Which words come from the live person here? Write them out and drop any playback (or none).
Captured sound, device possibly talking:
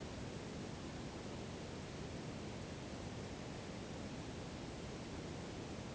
none